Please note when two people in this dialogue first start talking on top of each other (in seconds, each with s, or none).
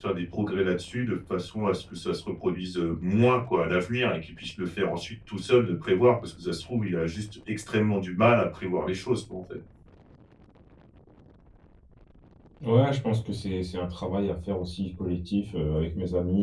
none